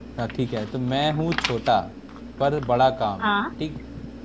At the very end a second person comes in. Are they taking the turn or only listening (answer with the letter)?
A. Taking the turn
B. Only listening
B